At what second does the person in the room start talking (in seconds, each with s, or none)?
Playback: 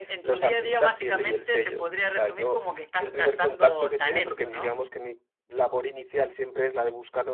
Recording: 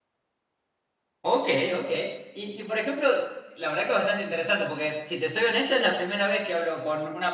1.2 s